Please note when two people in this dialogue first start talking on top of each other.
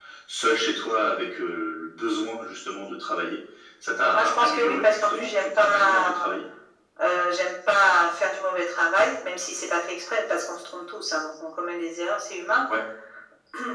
4.1 s

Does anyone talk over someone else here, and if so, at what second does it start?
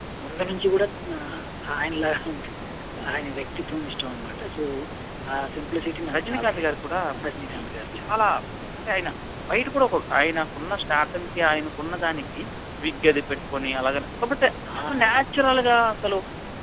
6.2 s

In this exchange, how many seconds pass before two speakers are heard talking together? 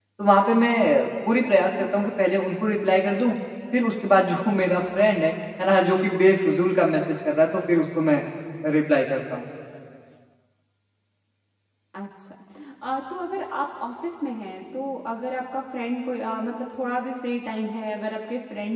none

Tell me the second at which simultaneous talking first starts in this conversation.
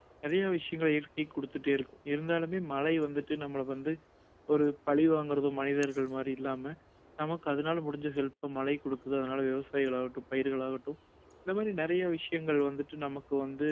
none

